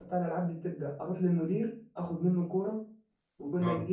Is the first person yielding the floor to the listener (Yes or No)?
No